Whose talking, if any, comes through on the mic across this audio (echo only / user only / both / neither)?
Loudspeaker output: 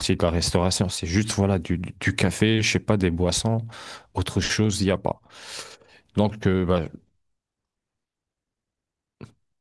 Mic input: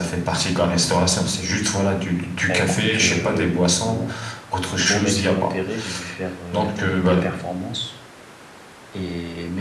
both